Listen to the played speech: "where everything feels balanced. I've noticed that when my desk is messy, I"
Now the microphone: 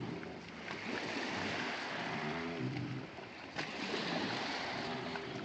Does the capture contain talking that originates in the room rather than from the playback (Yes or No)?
No